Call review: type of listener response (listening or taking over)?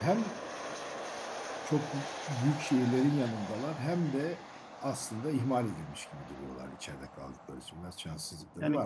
taking over